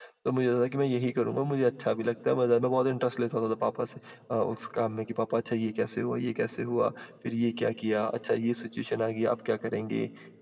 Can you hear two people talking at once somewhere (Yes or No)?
No